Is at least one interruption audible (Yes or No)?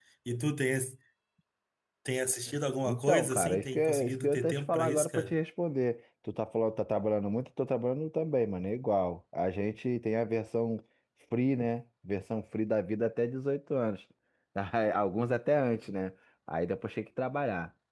Yes